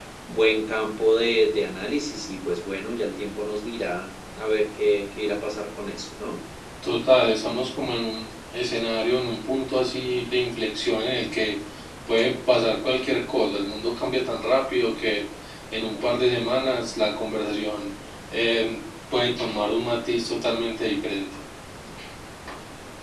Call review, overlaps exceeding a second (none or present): none